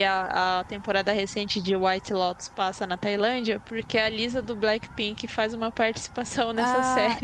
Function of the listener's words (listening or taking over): taking over